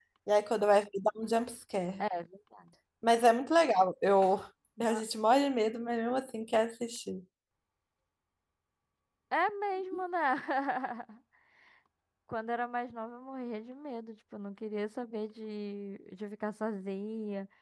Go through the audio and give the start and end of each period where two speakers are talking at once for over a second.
none

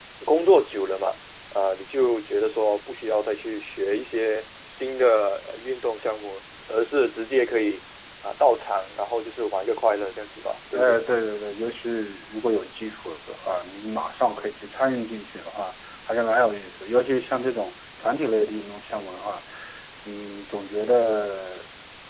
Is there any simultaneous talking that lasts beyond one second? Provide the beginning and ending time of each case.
none

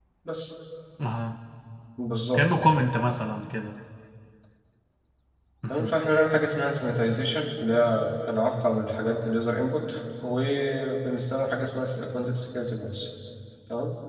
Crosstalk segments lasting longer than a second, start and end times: none

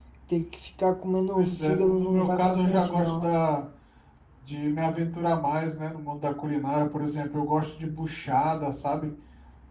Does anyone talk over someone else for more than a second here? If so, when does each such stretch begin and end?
1.3-3.3

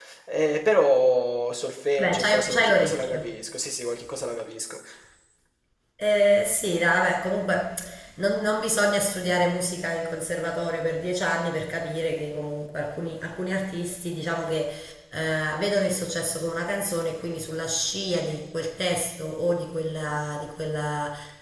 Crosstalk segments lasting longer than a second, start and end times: 2.0-3.3

